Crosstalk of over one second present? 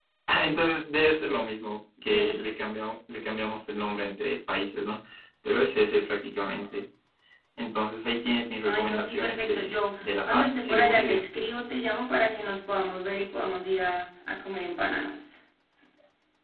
Yes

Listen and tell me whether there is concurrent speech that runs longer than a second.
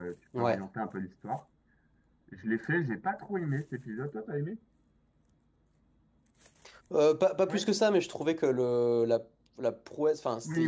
No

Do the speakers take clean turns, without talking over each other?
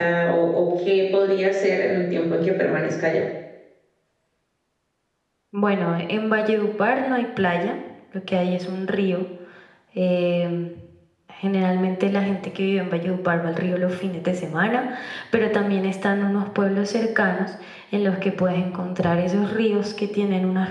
Yes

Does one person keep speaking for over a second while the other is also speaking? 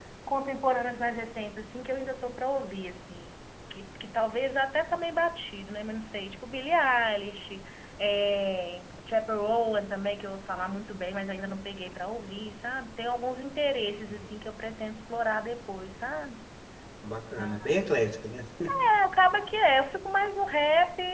No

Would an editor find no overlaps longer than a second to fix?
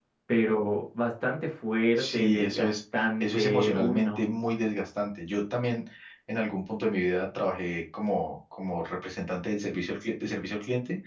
No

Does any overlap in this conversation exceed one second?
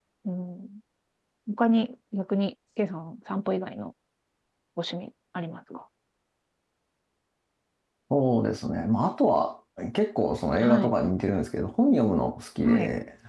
No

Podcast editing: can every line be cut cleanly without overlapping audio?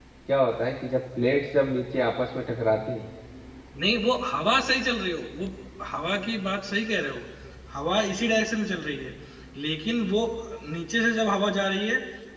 Yes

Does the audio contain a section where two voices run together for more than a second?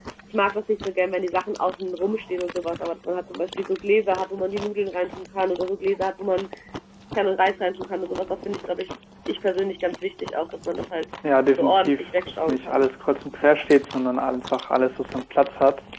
Yes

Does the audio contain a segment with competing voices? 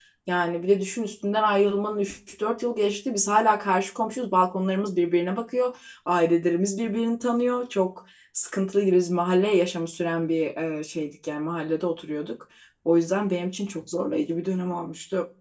No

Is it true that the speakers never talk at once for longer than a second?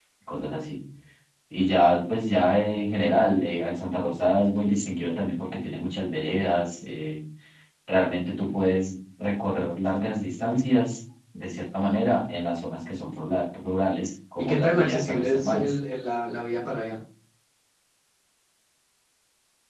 No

